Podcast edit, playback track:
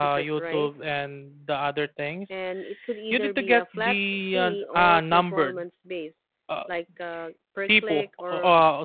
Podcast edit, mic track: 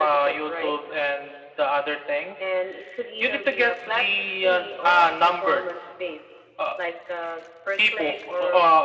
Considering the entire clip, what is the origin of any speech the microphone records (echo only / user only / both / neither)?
echo only